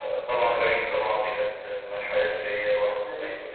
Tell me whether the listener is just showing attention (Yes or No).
No